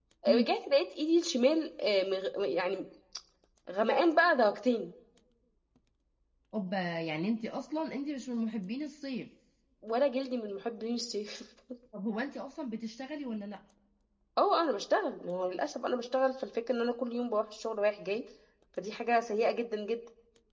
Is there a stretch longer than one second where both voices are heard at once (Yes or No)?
No